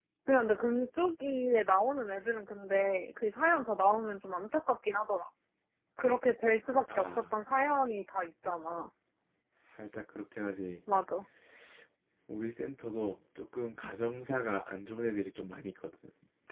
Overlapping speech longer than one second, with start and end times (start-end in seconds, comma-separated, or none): none